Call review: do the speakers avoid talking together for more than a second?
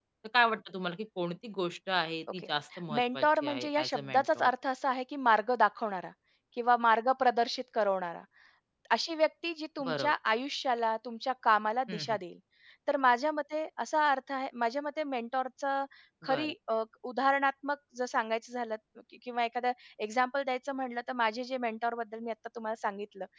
No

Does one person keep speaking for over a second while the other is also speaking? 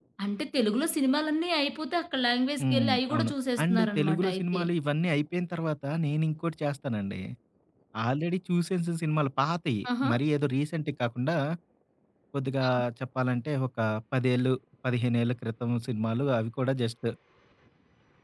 Yes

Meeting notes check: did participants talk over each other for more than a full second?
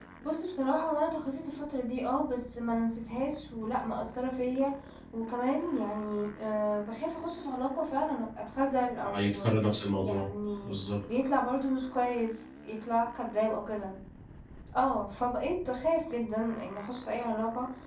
No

